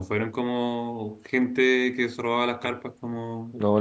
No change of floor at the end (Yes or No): No